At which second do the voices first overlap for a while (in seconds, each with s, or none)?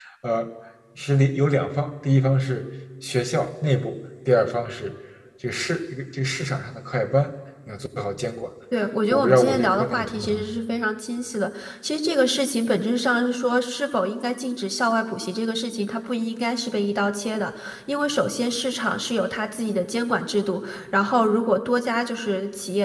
9.1 s